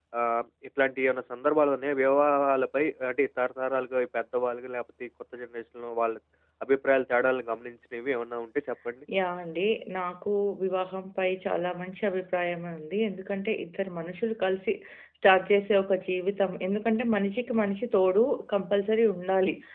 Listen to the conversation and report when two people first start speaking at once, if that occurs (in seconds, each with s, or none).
none